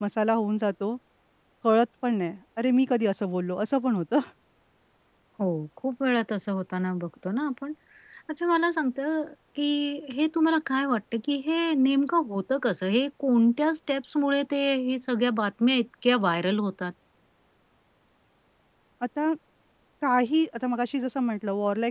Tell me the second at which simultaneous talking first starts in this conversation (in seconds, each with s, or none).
none